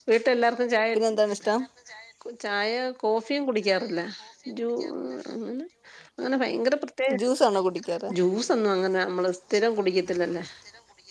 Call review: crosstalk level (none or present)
none